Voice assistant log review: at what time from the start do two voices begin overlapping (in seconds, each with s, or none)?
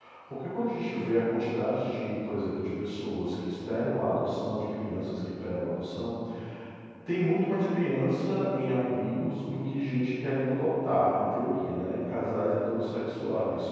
none